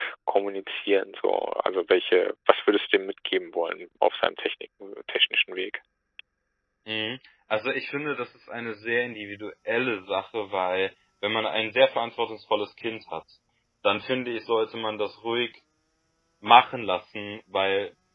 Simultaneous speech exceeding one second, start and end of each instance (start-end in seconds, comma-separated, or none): none